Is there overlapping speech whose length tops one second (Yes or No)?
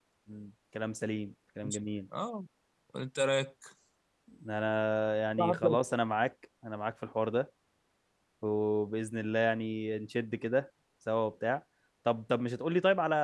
No